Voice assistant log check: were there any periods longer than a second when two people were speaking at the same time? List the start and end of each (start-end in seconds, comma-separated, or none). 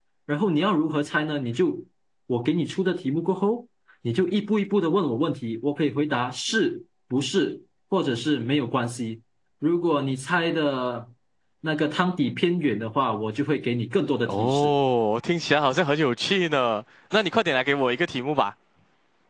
none